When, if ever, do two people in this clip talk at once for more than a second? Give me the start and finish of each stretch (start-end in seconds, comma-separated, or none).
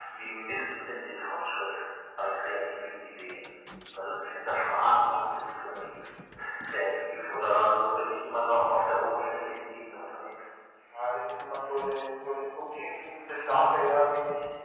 none